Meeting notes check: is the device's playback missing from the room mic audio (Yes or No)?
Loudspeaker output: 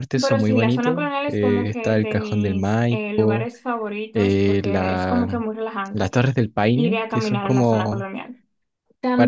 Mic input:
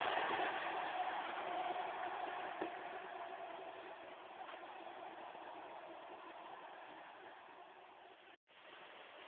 Yes